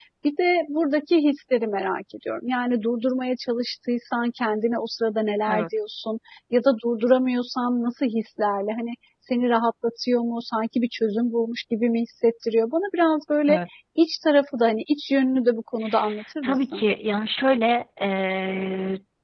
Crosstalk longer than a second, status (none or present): none